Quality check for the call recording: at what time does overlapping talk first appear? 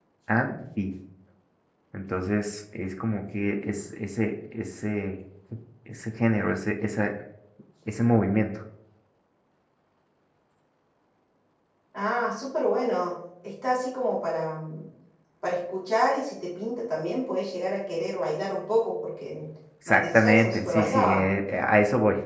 19.9 s

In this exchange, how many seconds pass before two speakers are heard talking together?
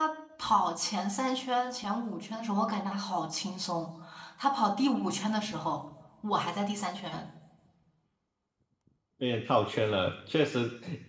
none

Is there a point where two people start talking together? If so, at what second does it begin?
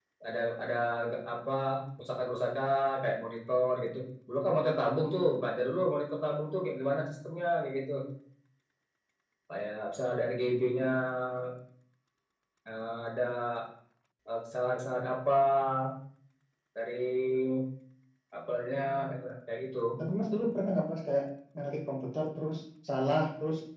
none

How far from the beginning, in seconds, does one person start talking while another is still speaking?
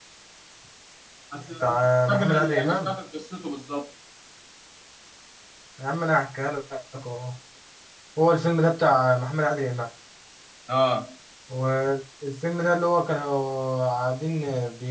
1.6 s

